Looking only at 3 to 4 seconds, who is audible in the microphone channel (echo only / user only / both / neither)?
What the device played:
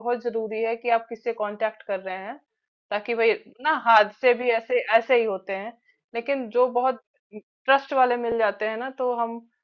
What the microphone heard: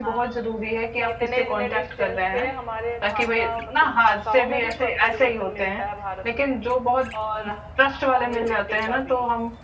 both